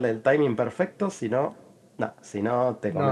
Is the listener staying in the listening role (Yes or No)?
No